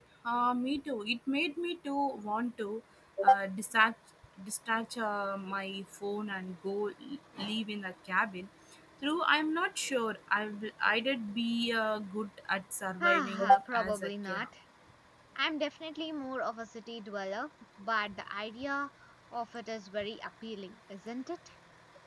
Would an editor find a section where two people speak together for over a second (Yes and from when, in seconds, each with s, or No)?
Yes, from 13.0 s